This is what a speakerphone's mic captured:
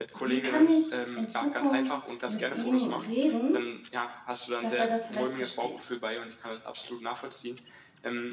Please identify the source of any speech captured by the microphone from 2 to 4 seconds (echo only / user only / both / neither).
both